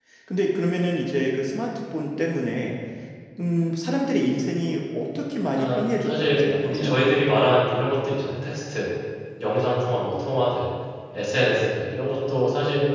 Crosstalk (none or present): present